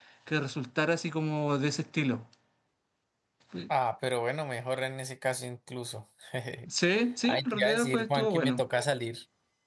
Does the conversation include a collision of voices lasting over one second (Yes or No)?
Yes